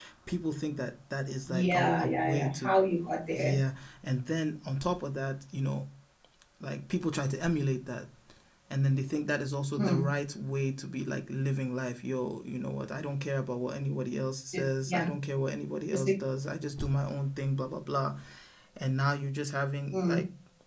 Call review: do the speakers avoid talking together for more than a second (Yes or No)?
No